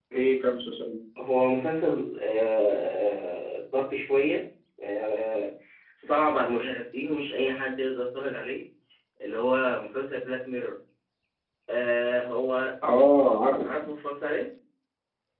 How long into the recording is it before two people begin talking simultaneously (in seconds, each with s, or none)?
none